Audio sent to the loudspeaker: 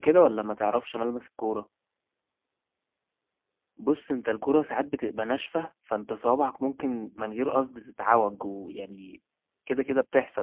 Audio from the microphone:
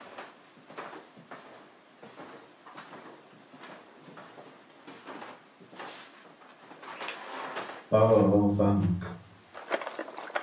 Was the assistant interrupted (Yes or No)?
Yes